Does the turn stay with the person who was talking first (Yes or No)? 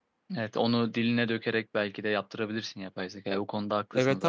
No